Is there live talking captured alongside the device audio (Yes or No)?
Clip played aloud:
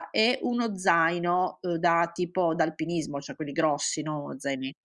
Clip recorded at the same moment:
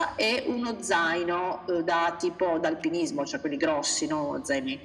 No